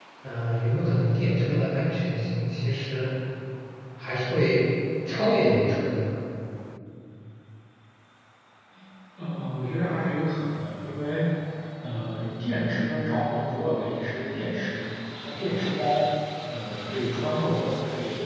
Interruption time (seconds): none

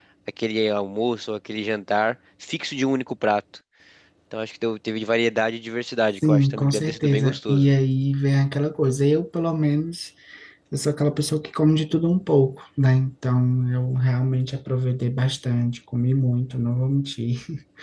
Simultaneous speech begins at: 6.2 s

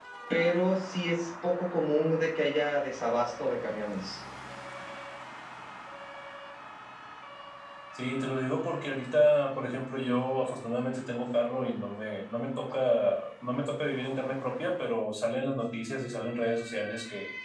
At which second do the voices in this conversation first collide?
none

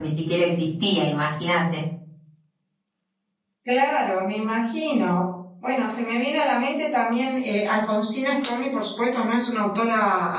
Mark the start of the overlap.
none

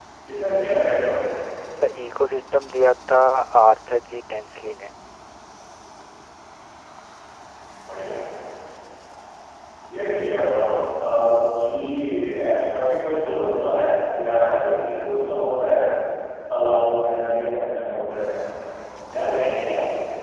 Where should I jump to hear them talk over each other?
none

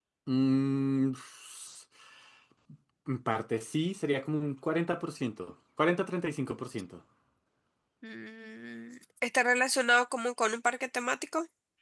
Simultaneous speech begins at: none

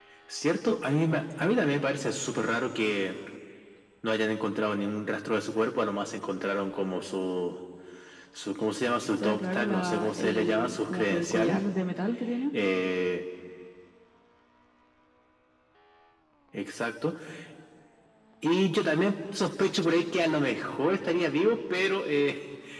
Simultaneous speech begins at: 9.2 s

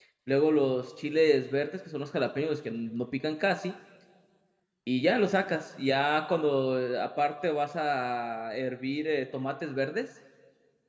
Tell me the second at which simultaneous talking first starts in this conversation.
none

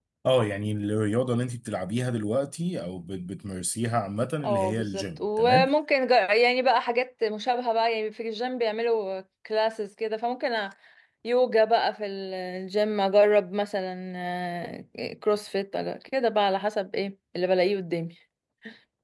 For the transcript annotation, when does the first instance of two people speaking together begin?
4.4 s

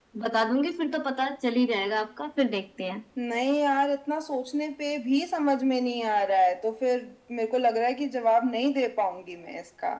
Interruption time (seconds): none

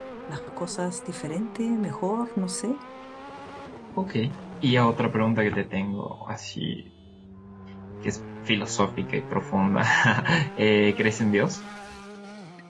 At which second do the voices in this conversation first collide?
none

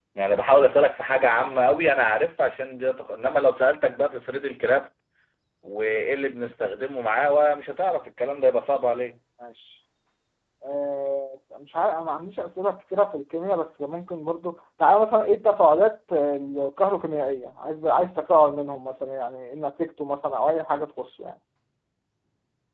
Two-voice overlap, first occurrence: none

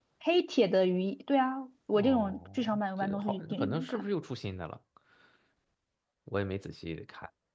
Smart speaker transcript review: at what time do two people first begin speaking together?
1.9 s

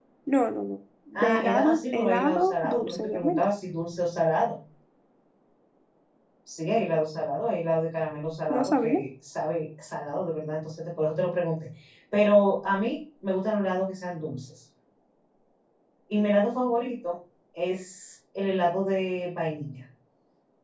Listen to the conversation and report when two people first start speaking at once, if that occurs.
1.1 s

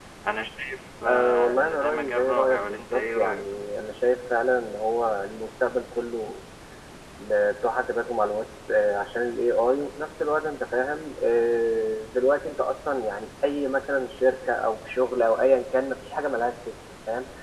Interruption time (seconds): 1.1 s

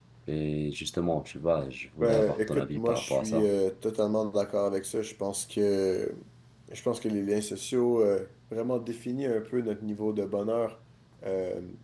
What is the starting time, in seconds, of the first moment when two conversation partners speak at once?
2.0 s

